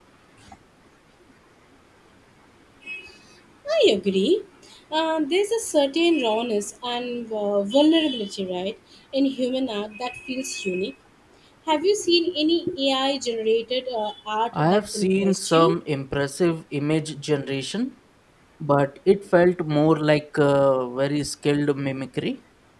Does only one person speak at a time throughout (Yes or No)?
No